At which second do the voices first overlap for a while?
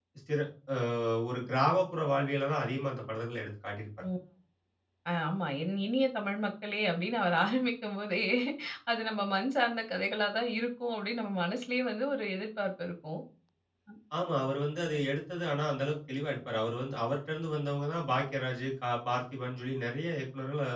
none

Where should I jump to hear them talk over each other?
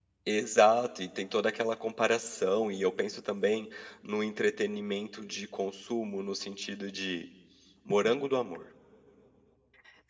none

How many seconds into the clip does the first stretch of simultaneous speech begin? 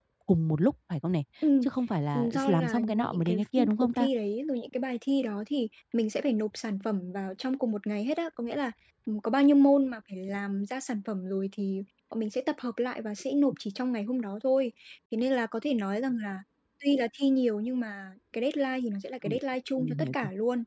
2 s

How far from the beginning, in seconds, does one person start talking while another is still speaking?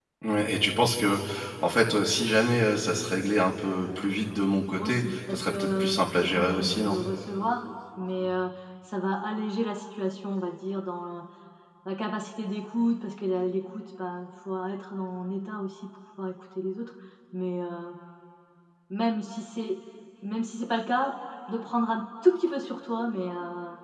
5 s

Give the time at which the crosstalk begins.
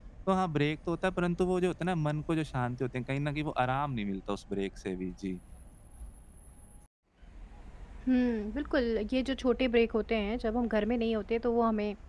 none

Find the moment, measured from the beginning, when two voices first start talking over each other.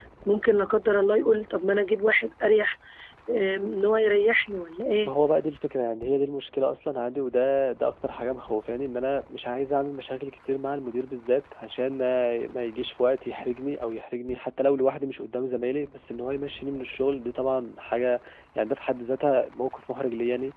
none

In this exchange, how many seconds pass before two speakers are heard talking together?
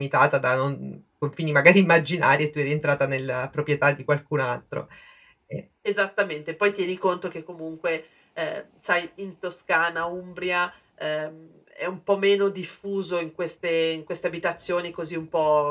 none

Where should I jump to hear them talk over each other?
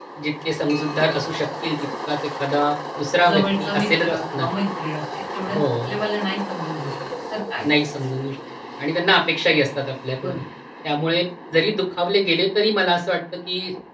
3 s

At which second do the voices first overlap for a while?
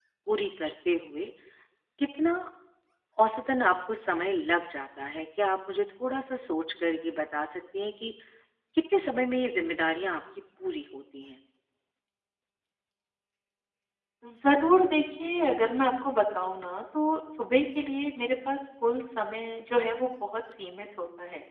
none

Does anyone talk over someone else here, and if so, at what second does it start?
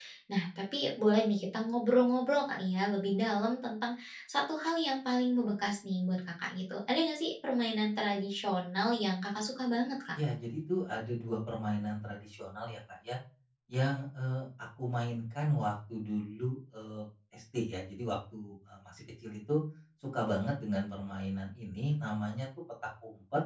none

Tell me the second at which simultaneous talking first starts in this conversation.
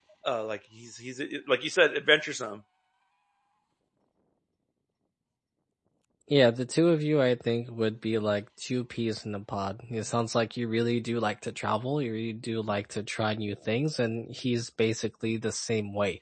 none

